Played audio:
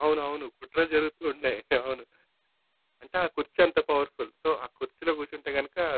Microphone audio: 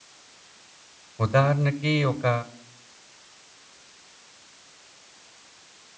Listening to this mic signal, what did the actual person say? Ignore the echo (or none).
ఉదాహరణకి ఒక